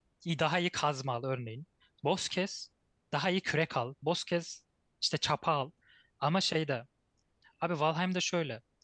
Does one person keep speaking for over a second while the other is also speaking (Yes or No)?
No